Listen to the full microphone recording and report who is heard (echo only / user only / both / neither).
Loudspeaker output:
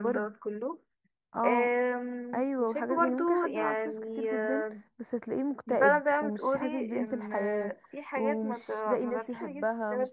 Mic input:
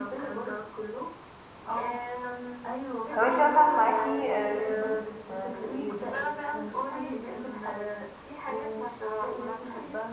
both